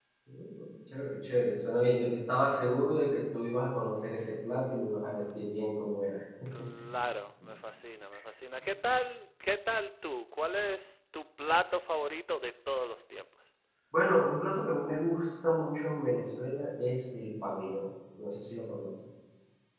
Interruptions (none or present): none